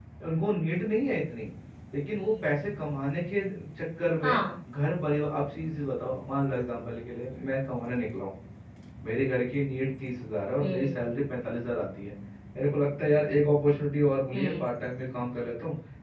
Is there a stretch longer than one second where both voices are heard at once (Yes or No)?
No